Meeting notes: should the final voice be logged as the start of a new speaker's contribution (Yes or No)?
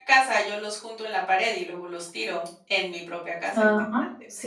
Yes